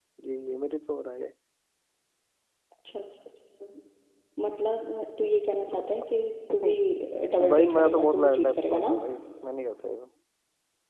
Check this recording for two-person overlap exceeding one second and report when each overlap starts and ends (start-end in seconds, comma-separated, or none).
7.5-8.9